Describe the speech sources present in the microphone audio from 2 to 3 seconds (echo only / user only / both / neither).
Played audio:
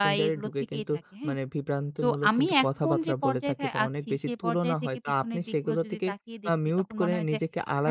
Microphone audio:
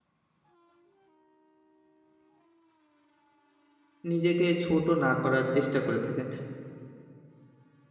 neither